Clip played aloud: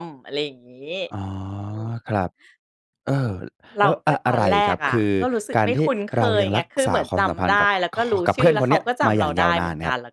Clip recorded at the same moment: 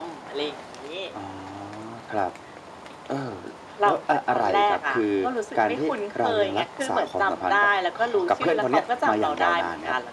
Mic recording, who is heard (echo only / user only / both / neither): echo only